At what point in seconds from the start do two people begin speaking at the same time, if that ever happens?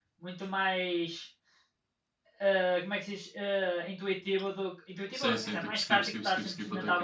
5.1 s

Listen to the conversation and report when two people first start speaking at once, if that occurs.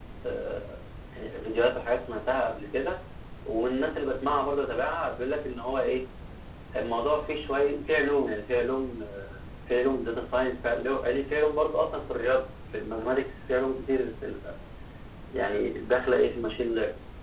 none

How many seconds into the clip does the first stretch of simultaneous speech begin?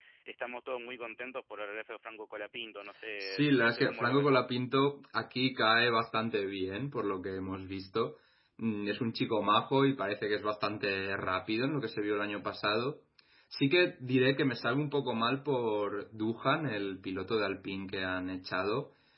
3.2 s

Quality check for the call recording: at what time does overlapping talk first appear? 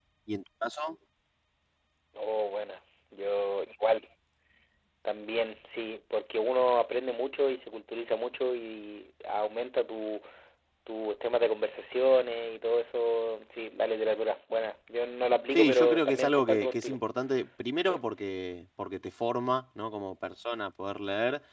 15.5 s

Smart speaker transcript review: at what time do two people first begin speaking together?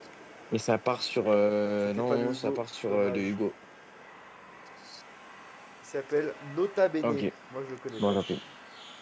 1.9 s

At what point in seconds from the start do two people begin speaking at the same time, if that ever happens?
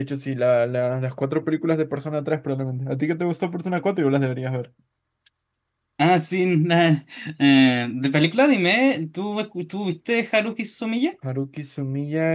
none

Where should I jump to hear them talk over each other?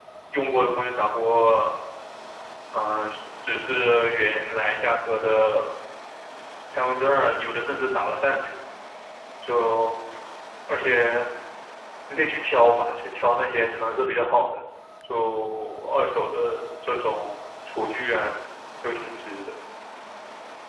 none

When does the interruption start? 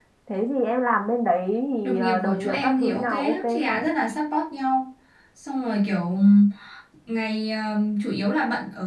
1.8 s

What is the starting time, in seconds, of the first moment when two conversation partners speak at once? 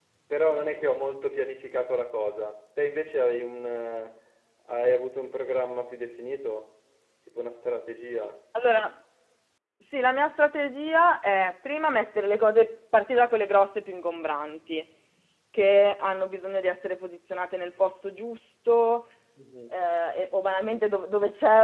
none

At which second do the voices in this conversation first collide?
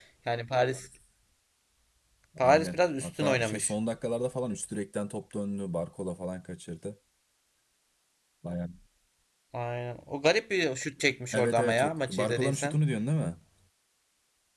2.4 s

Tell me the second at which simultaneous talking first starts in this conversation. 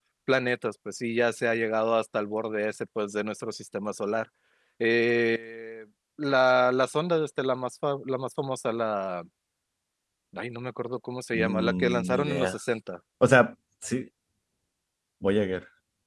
11.3 s

